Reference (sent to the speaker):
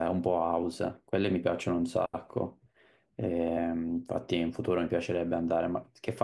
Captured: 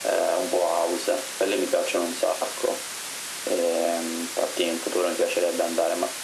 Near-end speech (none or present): none